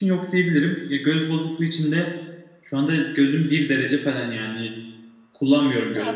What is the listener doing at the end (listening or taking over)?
listening